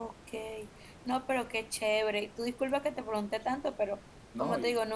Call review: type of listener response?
listening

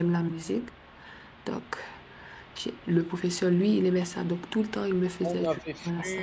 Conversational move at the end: taking over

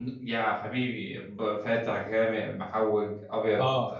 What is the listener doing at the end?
taking over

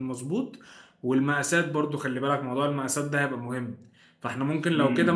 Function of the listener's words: listening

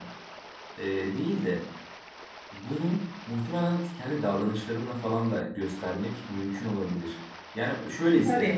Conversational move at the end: listening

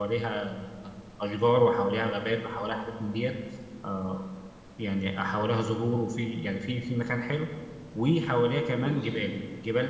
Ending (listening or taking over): listening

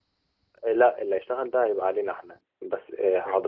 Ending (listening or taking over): listening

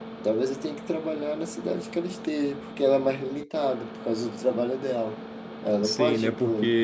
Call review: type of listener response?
taking over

